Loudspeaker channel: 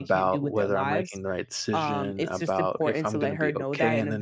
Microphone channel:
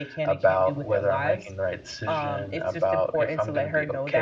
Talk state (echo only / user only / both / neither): echo only